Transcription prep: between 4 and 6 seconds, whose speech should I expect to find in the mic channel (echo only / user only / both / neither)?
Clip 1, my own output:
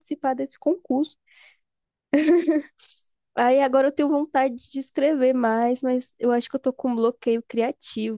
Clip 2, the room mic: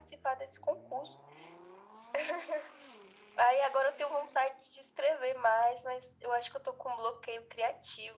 echo only